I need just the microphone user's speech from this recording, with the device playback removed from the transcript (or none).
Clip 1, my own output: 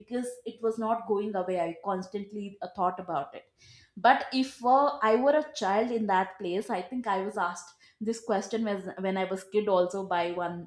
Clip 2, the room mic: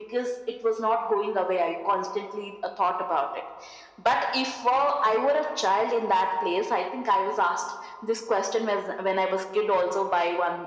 none